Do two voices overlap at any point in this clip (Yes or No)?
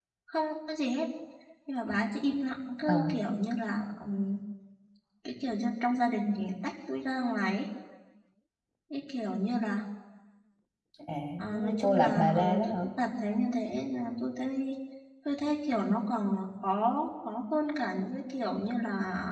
Yes